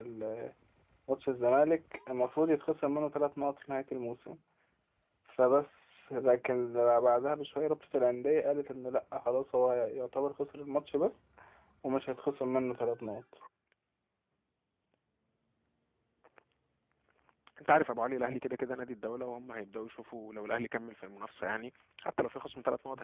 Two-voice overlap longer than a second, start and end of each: none

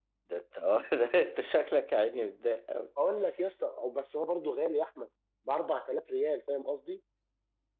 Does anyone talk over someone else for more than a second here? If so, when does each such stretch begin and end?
none

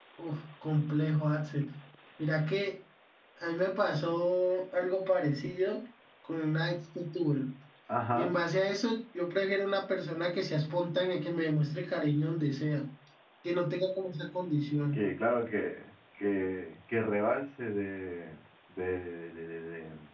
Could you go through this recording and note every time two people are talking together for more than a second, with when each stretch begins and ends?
none

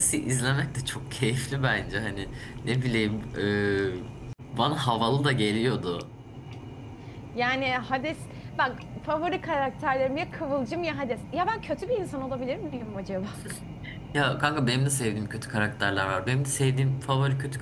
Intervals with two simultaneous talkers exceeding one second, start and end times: none

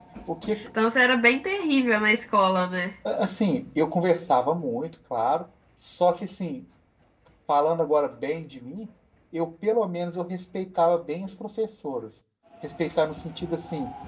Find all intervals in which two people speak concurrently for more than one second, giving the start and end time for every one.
none

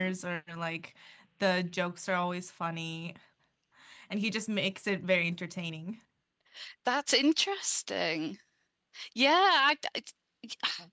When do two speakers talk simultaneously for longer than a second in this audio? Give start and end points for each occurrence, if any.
none

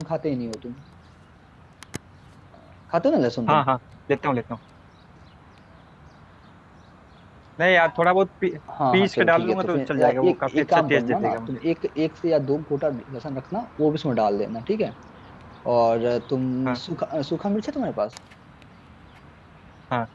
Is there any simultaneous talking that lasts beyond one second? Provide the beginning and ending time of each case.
8.9-11.6

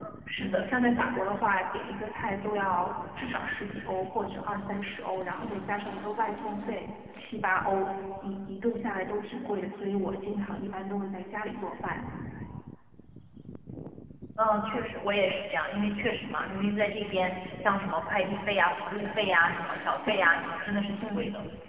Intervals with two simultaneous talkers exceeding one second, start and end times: none

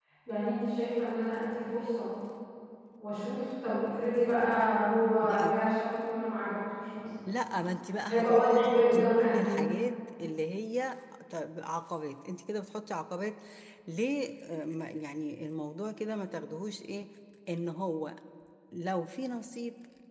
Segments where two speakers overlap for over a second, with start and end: 8.1-9.6

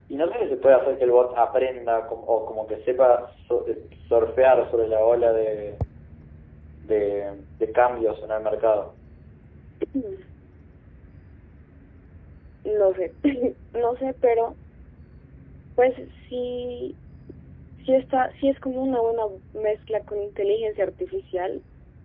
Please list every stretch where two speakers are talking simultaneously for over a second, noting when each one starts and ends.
none

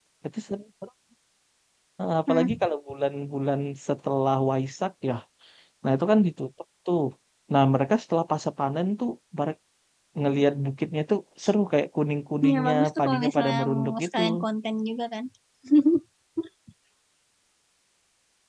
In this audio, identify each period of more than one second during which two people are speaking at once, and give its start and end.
12.4-14.2

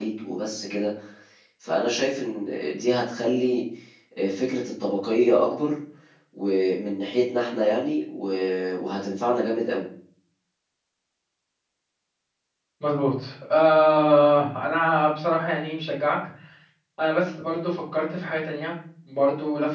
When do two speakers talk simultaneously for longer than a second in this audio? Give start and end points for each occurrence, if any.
none

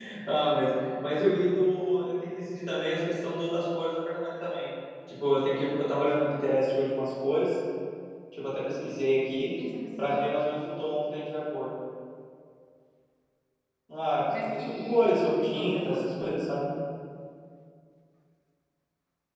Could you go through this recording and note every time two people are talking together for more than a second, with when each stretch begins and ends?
14.3-16.1

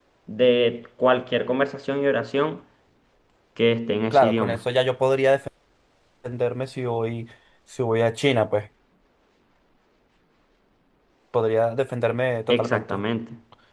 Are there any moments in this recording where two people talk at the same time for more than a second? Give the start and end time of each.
none

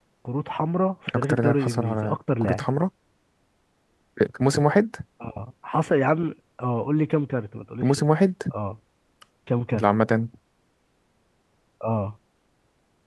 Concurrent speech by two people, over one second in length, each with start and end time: 1.1-2.6

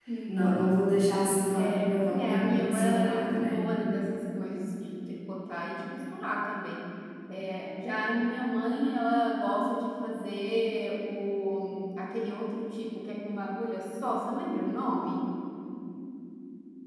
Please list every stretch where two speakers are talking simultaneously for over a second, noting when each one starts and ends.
1.5-3.6

